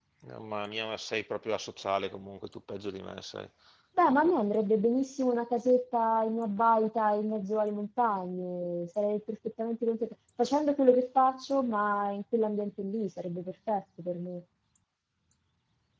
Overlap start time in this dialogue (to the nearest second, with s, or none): none